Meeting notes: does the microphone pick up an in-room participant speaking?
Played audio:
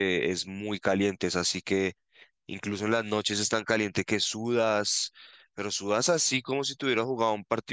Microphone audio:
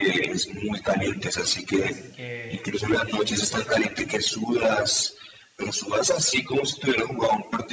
Yes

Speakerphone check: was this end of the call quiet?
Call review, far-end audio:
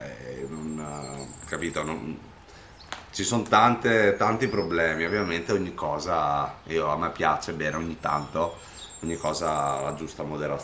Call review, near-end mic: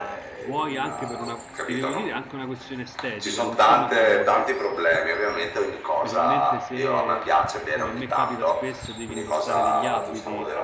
No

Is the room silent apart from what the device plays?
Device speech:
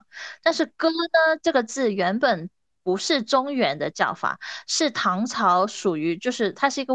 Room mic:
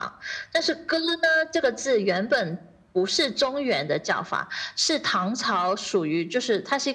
Yes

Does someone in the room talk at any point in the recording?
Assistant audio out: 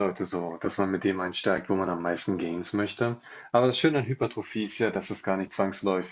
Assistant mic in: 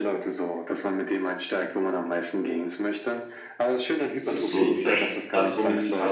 Yes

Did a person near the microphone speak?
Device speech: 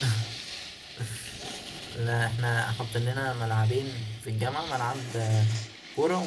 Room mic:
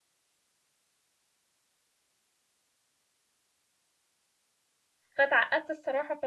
Yes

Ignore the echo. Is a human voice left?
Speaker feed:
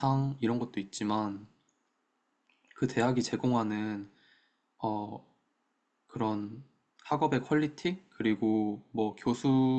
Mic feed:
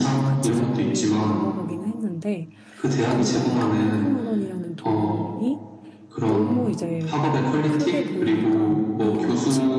Yes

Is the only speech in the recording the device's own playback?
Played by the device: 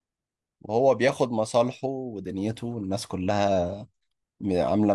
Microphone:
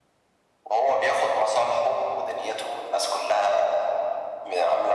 Yes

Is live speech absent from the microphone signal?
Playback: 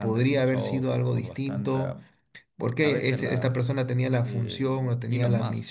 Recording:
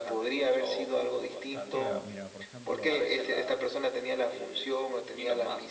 No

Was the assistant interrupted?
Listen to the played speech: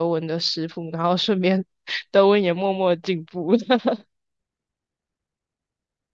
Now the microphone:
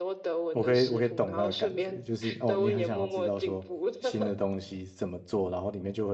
Yes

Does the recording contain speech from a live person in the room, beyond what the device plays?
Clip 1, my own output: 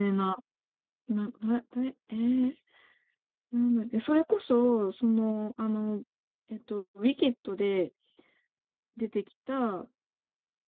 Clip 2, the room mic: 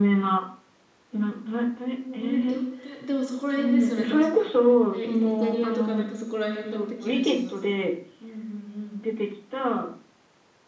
Yes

